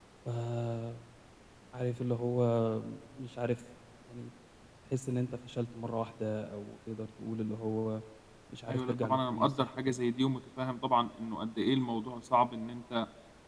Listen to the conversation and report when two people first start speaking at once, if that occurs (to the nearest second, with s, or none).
9 s